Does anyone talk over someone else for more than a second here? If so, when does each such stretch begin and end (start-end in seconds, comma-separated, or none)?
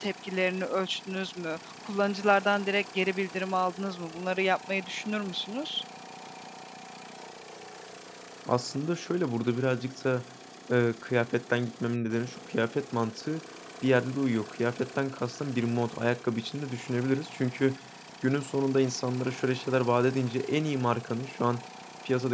none